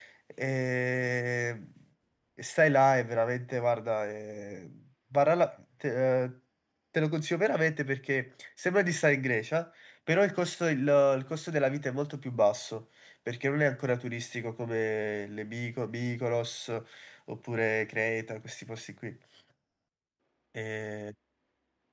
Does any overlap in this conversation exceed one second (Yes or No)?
No